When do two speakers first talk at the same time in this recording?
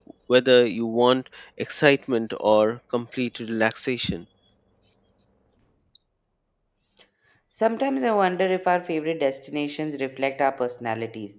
none

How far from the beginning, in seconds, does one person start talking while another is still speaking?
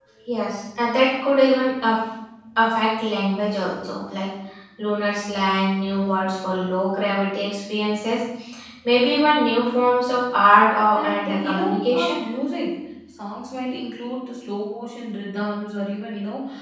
10.9 s

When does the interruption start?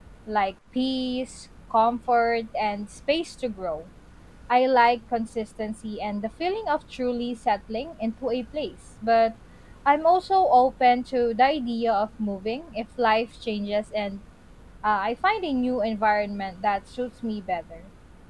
none

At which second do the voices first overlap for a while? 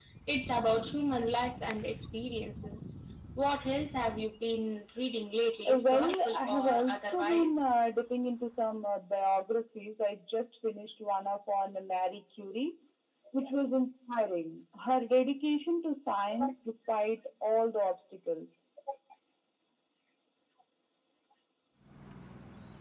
5.7 s

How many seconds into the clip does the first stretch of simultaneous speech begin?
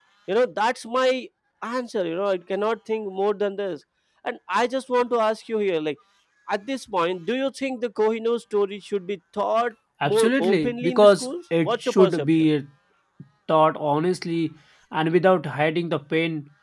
10.0 s

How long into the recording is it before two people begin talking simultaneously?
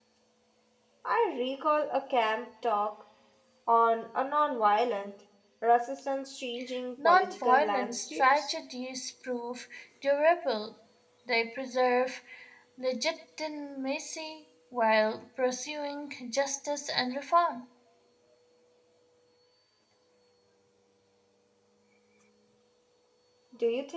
7.0 s

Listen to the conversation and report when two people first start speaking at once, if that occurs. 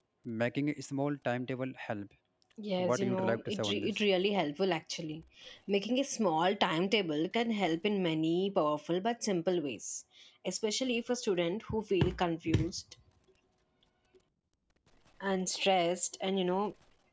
2.8 s

